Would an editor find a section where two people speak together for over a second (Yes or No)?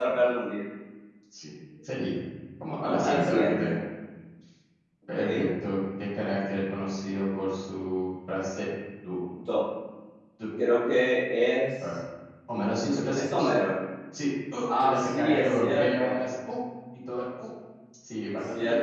Yes